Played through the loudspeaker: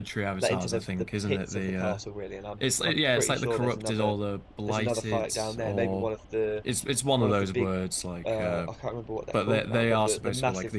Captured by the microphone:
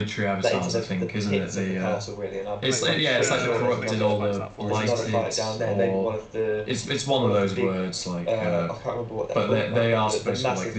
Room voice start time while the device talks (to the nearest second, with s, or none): 3 s